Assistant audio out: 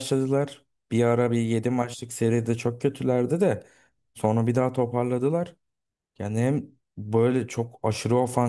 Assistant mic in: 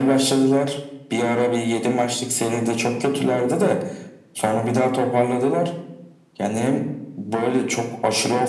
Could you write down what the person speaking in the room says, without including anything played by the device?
none

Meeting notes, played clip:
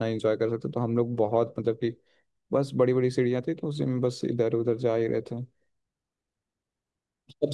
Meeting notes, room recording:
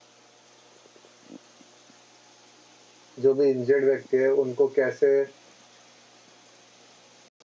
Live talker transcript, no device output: जो भी इंजर्ड व्यक्ति है उनको कैसे

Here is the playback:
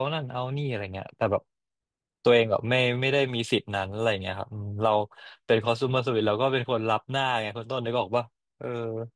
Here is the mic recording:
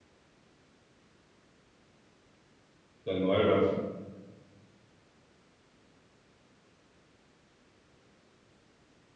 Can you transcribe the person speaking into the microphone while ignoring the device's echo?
อย่างน้อยแบบ

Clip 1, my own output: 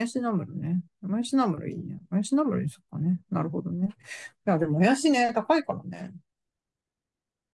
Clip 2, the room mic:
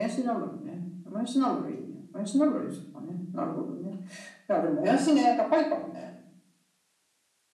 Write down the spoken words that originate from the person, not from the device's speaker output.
none

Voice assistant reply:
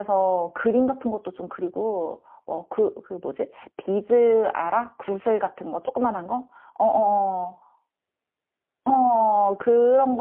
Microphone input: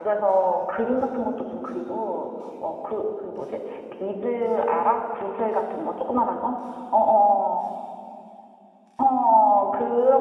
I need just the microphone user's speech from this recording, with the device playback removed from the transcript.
none

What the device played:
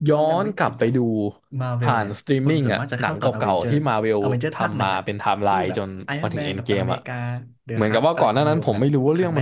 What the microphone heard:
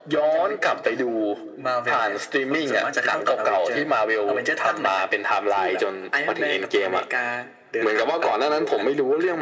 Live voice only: none

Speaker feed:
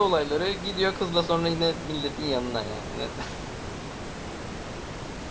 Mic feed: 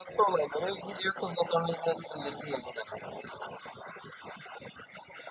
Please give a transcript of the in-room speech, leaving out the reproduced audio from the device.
none

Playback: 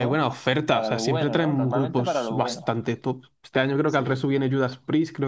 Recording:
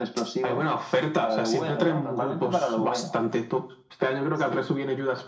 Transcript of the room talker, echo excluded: none

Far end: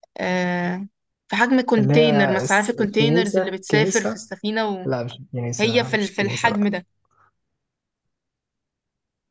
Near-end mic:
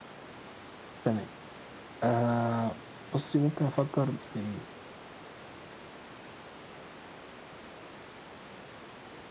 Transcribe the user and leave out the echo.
تمام آه بصي ممكن افكر في

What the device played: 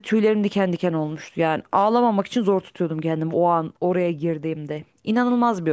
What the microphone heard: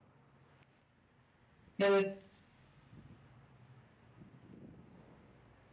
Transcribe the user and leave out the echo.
Evet.

